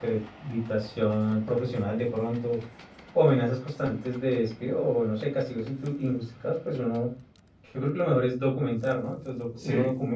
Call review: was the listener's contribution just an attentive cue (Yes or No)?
Yes